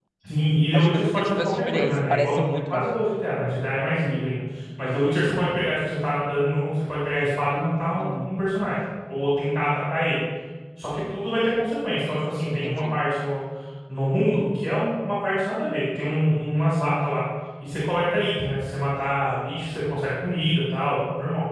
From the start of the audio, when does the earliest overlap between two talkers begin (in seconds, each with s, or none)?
0.7 s